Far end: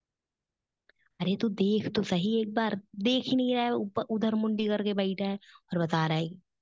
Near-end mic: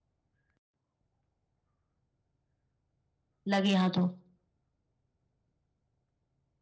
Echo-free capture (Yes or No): Yes